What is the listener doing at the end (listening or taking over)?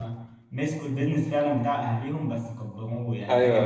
taking over